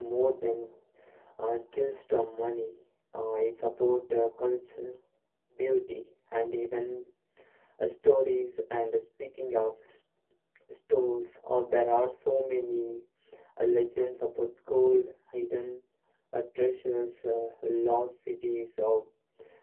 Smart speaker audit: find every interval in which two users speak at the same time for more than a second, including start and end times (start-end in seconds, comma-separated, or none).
none